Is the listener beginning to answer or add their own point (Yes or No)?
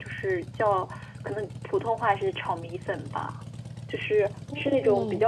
No